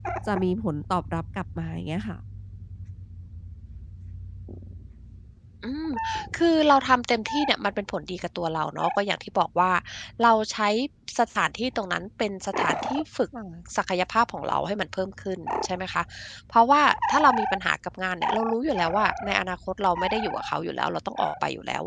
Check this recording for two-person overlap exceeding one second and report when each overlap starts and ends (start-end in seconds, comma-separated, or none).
none